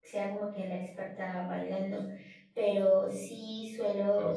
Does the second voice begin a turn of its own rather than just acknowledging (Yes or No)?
No